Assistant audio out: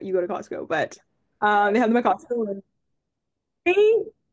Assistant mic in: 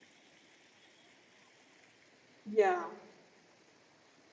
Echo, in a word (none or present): none